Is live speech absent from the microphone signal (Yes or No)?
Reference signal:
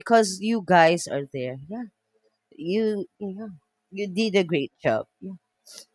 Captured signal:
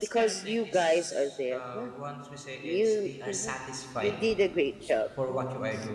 No